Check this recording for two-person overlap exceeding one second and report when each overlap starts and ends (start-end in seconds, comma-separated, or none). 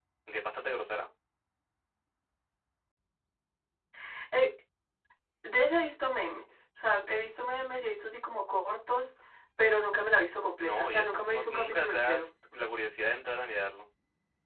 10.6-12.3